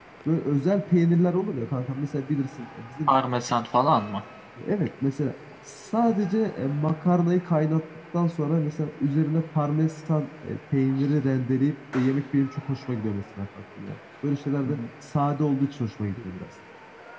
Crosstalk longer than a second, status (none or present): none